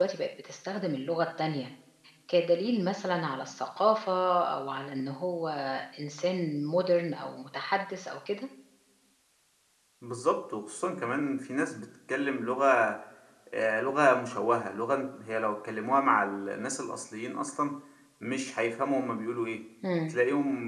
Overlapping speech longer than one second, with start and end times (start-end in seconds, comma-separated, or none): none